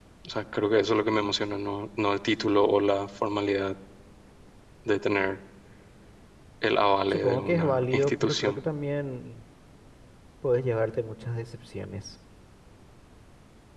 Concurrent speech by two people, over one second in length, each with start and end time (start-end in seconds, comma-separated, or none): 7.1-8.6